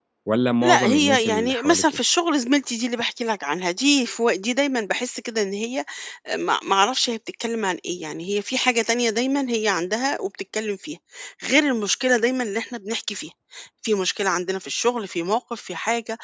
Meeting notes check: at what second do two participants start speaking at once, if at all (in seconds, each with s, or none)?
0.6 s